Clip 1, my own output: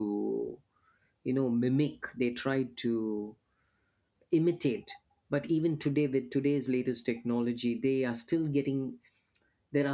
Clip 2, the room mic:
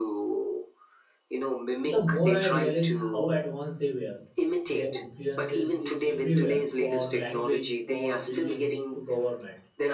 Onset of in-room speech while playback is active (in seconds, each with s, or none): 1.8 s